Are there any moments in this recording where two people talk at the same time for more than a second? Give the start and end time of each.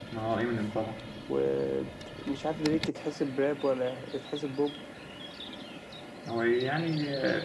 none

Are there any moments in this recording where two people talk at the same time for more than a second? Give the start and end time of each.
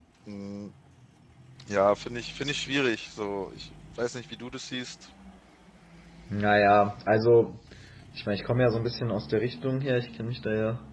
none

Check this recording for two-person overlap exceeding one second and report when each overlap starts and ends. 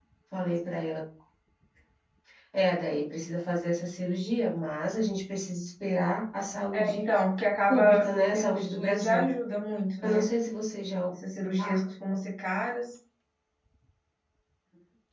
7.7-9.3

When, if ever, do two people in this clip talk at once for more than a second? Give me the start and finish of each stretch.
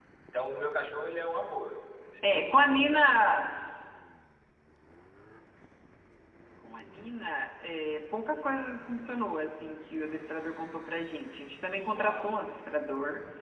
2.2-3.6

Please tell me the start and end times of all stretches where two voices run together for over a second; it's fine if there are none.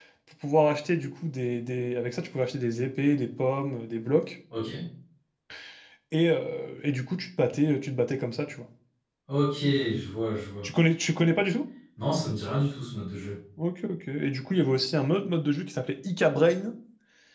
none

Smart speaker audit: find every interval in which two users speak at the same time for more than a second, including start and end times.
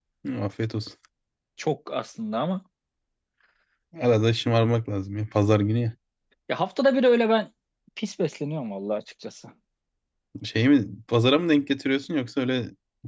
none

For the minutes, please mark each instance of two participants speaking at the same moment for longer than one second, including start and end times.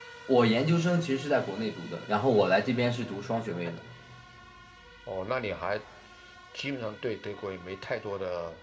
none

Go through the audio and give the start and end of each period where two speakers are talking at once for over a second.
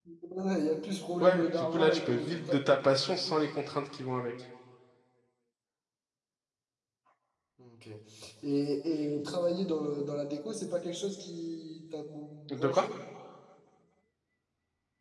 1.2-2.8

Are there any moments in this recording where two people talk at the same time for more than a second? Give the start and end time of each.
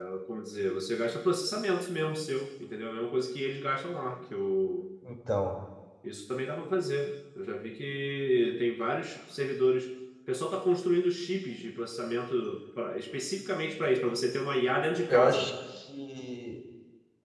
none

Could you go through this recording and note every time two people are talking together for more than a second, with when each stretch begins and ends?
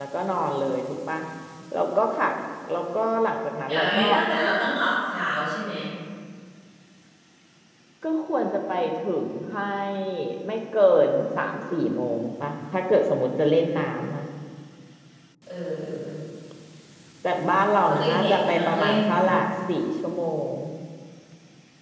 17.8-19.3

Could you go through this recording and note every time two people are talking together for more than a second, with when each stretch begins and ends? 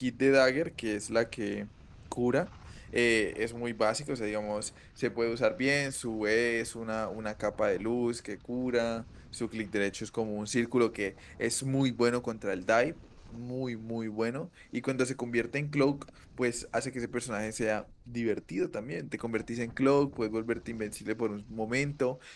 none

